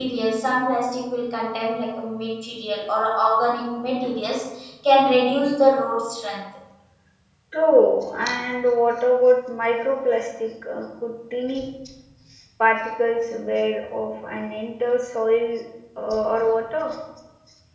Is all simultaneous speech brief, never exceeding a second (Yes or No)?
Yes